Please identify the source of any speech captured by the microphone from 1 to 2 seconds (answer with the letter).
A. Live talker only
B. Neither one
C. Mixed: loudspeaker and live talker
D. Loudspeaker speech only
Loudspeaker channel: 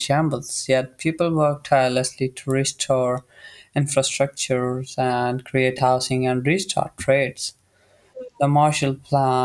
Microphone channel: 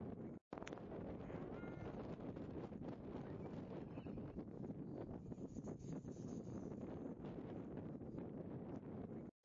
B